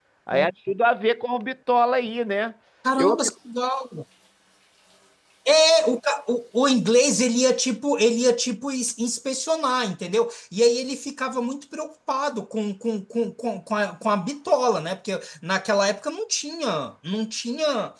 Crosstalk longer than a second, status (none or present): none